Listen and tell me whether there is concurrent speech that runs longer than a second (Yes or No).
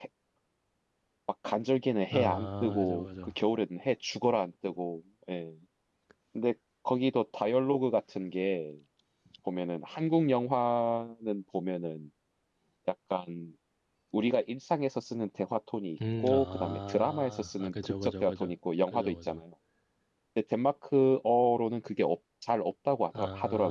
Yes